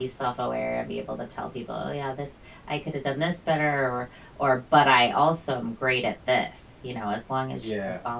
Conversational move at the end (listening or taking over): listening